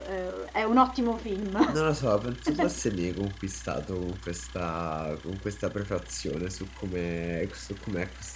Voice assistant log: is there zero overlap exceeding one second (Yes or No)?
Yes